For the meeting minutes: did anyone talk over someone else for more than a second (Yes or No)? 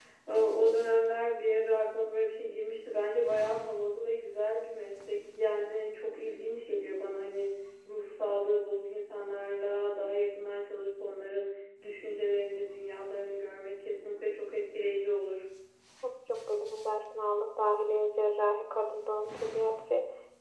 No